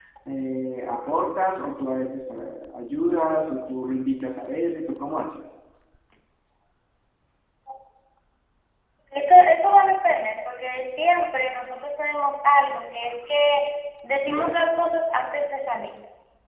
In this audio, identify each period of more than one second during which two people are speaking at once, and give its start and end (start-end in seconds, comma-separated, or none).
none